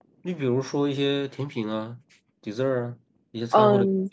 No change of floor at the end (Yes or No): No